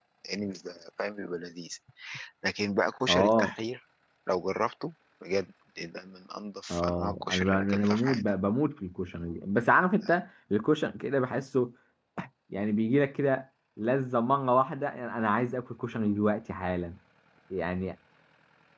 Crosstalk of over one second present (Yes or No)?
Yes